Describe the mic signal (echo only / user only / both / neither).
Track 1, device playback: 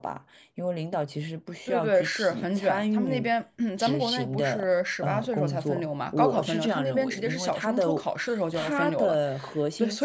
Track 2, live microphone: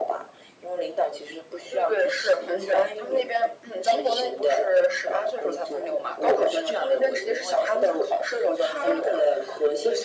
echo only